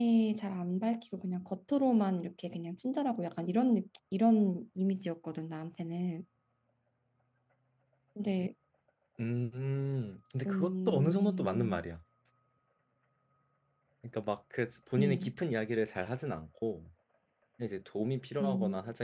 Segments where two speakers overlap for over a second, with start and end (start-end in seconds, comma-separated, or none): 10.5-11.8